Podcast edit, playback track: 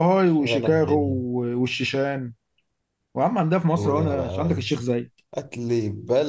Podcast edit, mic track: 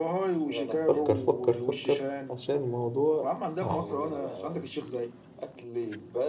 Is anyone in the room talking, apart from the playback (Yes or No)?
Yes